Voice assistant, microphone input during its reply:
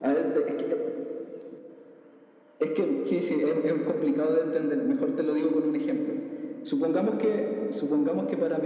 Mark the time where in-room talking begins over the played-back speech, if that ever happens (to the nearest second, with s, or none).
none